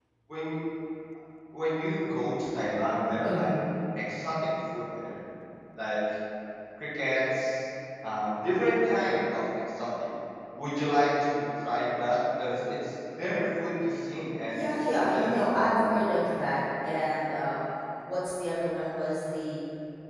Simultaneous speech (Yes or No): Yes